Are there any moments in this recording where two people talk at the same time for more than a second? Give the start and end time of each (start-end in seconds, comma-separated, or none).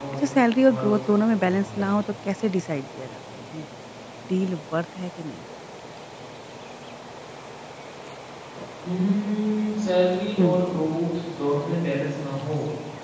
0.7-2.0